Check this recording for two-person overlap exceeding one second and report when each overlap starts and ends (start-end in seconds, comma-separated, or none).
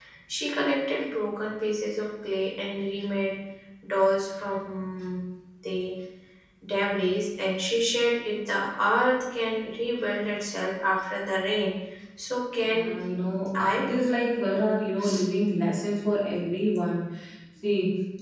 none